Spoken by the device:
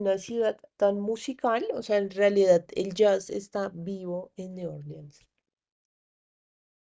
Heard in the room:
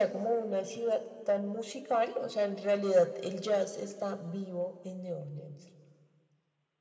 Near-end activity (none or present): none